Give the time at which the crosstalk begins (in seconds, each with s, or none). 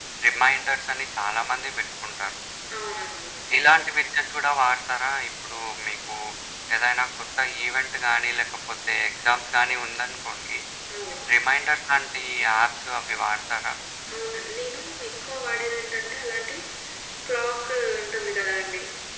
none